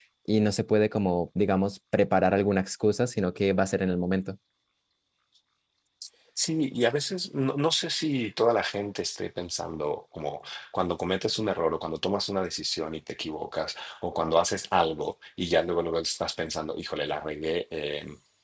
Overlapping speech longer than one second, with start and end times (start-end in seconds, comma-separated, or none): none